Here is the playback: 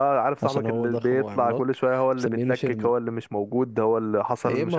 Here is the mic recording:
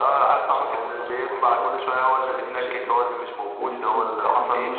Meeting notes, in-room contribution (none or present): present